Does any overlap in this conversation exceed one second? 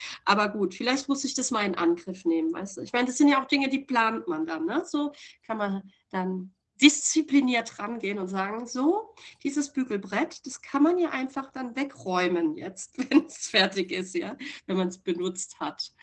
No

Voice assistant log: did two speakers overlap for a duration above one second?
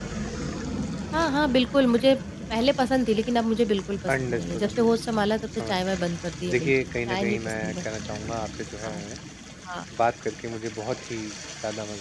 Yes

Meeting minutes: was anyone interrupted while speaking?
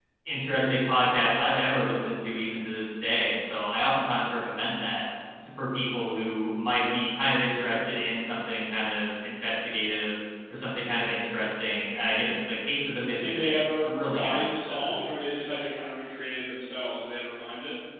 Yes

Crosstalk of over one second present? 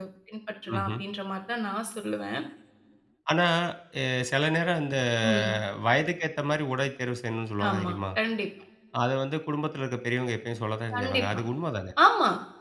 No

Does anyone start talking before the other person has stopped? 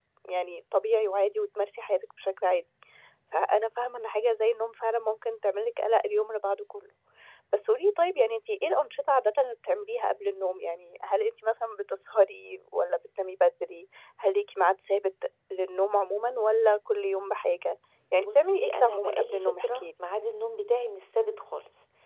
Yes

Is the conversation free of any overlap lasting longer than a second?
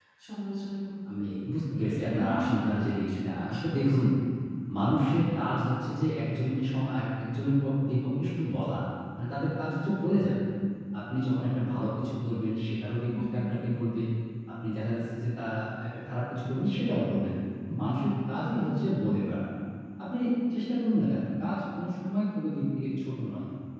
No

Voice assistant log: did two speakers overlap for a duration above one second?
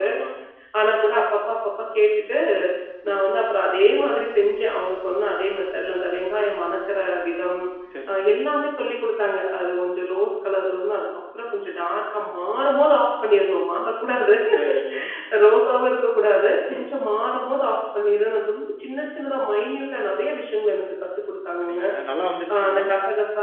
No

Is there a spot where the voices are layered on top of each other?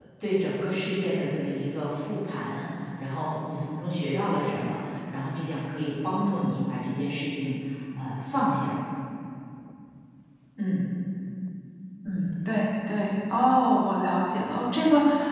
No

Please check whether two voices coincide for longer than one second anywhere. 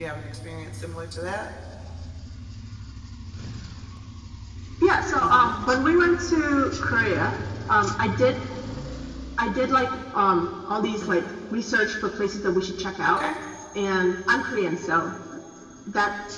No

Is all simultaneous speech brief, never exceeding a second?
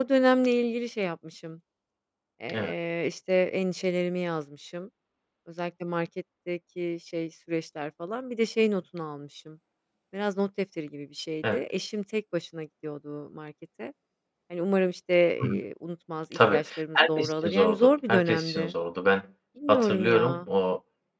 No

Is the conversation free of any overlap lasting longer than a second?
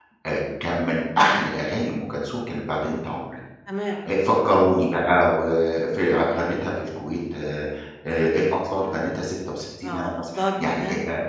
No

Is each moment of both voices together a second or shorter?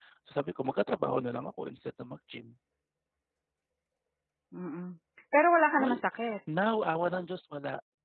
Yes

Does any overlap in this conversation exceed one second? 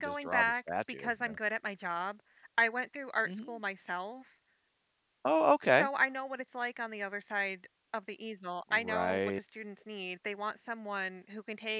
Yes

